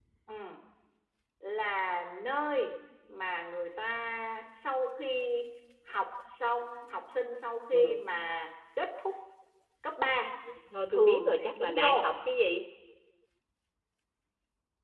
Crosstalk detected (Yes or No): Yes